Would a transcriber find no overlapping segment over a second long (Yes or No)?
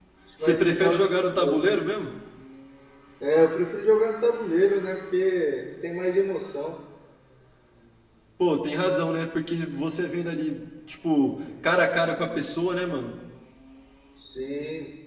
No